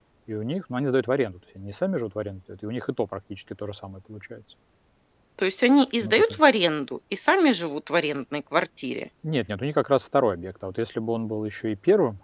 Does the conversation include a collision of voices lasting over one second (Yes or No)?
No